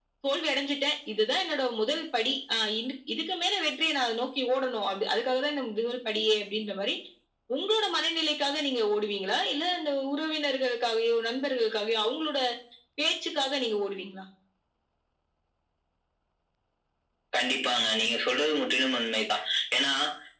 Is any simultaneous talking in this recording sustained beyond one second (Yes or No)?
No